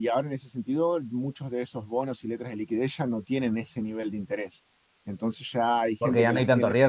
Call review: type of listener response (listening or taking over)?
taking over